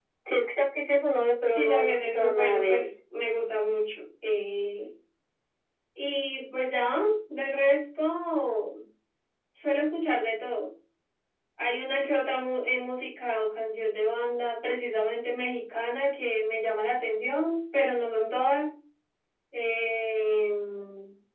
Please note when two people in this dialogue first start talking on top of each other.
1.6 s

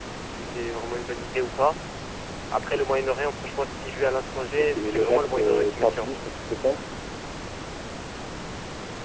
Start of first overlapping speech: 4.6 s

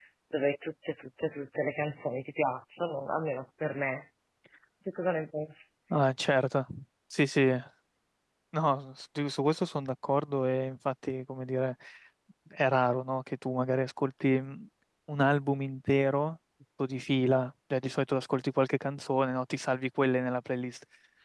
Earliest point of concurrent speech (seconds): none

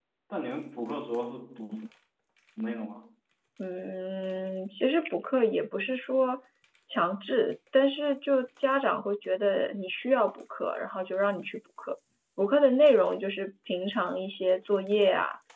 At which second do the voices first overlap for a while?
none

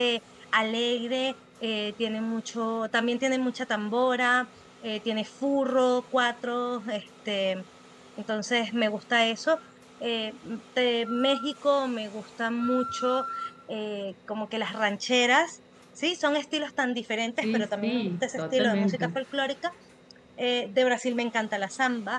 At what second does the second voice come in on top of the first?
17.4 s

